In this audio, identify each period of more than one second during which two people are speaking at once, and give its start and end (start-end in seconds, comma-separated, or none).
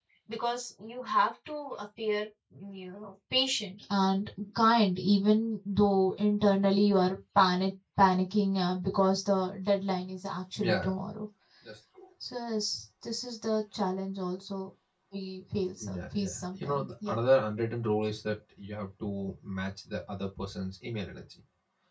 15.8-17.2